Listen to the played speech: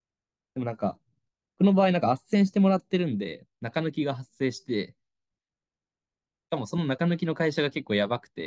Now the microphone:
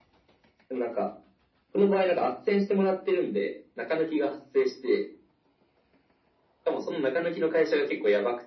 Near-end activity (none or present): none